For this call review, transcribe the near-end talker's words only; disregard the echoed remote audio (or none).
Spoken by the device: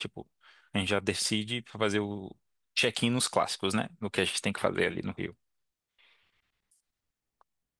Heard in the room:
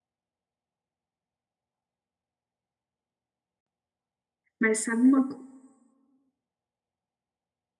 Mas sabe uma, co-